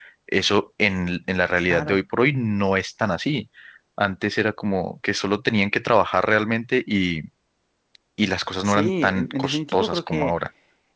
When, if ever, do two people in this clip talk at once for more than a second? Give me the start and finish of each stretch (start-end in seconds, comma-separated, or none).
8.7-10.3